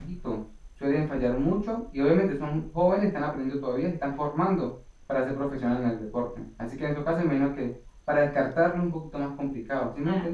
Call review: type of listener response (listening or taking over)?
taking over